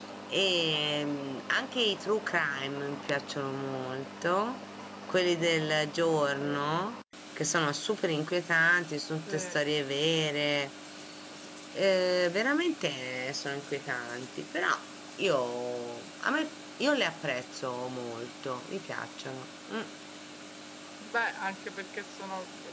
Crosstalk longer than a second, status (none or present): none